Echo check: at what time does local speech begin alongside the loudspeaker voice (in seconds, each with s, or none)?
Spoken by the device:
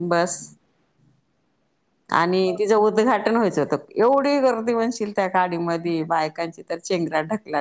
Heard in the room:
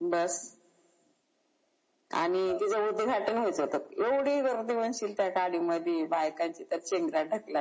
none